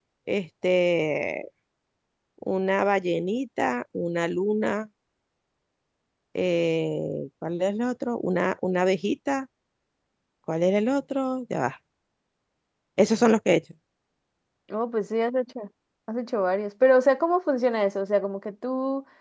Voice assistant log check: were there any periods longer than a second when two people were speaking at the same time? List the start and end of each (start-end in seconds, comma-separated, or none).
none